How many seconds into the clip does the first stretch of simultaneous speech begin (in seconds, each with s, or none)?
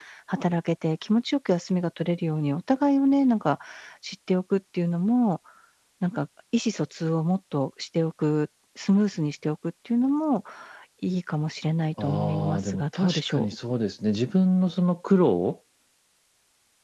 12.0 s